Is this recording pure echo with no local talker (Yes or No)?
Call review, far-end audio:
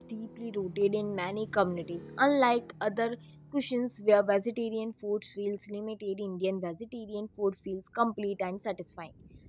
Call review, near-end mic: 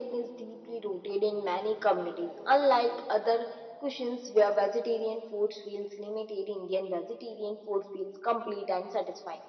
Yes